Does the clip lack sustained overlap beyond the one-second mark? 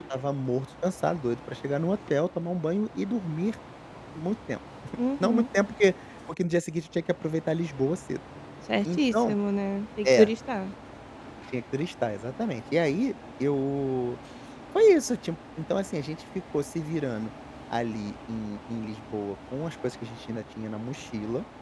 Yes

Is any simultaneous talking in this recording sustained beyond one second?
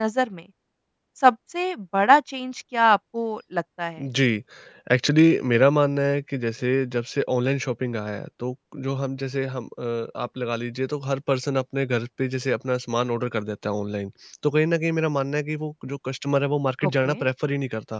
No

